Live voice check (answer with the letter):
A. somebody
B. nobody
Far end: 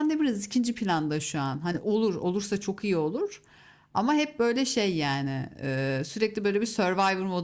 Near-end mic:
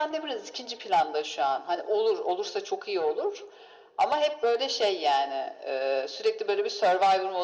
B